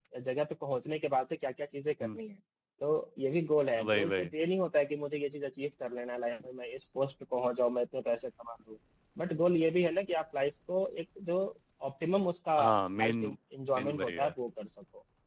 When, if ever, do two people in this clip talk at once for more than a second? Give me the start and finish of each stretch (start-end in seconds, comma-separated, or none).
none